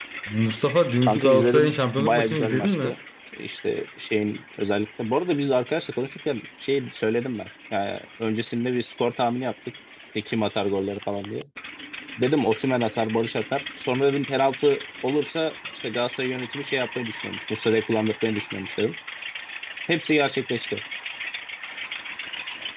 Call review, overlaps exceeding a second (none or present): present